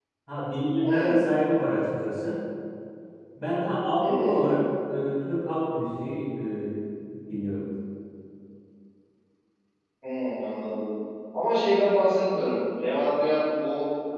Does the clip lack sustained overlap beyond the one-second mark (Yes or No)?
Yes